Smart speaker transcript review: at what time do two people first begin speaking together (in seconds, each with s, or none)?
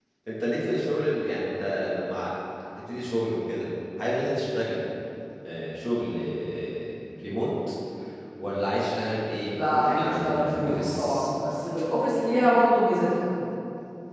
9.6 s